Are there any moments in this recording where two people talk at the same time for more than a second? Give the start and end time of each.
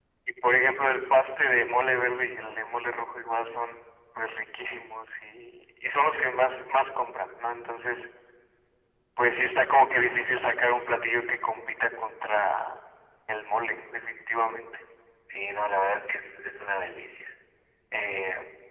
none

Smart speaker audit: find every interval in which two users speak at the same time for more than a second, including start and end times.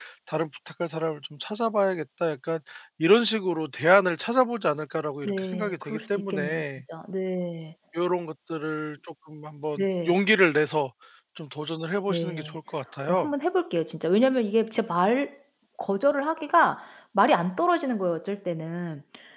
5.2-6.6

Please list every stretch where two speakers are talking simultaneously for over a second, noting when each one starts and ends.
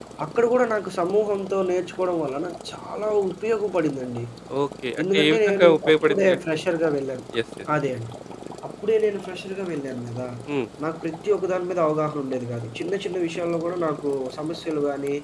5.1-6.4

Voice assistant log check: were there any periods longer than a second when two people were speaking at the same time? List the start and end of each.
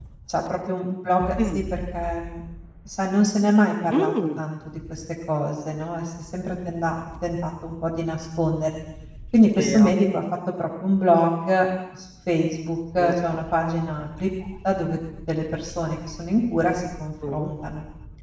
none

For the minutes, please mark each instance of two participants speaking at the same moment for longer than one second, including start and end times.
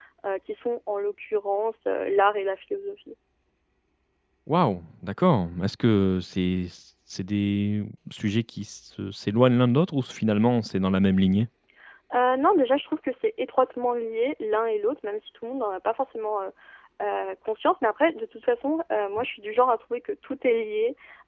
none

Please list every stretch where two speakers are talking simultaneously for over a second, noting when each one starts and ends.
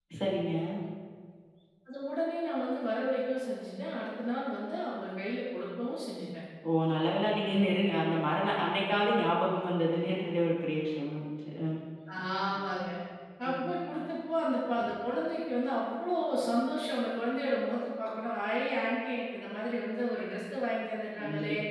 none

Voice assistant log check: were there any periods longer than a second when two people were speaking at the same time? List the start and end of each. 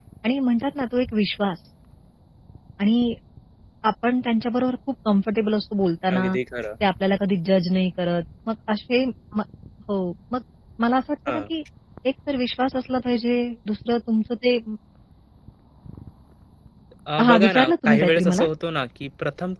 17.2-18.4

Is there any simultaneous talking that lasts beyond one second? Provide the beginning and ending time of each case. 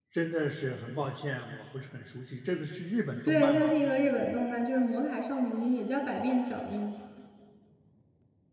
none

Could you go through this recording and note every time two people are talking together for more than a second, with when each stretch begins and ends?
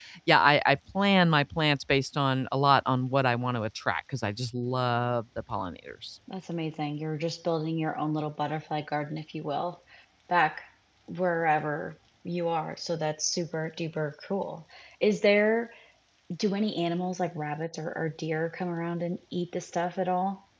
none

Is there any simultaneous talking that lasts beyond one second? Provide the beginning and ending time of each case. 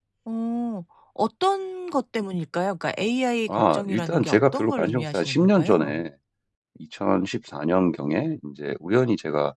3.5-6.0

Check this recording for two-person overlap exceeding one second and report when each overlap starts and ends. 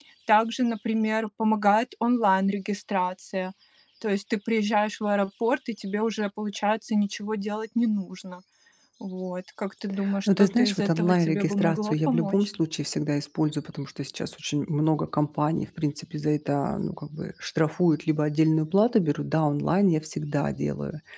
10.3-12.5

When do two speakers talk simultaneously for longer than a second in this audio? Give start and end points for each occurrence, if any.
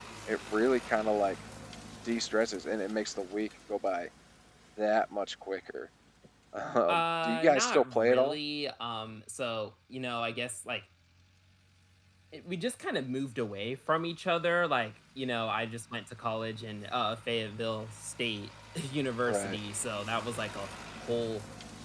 6.9-8.4

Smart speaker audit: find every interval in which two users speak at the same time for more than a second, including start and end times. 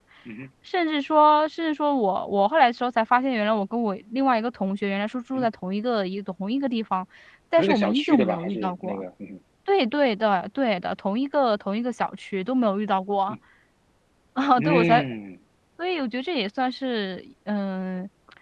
7.6-9.0

